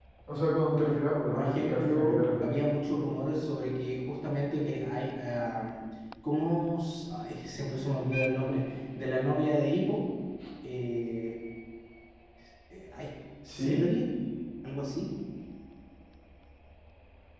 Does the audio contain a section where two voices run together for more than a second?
Yes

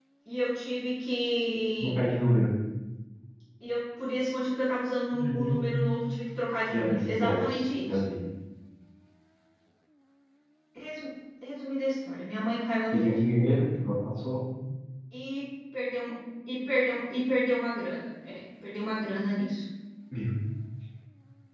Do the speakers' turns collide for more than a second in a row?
Yes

